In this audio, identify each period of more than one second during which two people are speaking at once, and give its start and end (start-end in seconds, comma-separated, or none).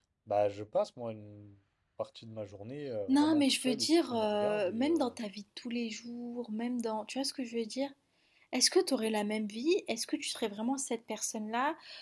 3.1-5.1